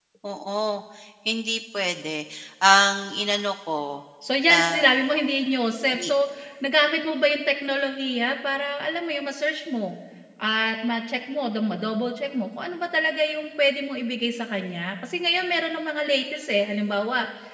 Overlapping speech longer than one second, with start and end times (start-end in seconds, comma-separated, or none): none